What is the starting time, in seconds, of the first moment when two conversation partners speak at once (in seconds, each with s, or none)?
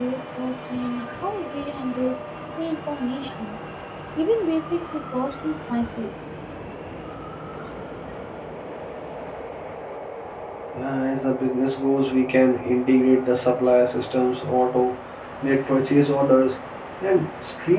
none